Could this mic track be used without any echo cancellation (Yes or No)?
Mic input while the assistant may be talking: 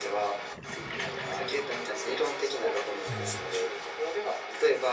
No